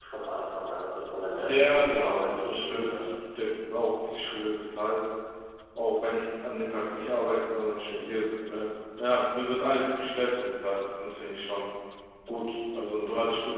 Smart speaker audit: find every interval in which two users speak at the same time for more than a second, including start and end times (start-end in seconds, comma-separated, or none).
1.5-2.9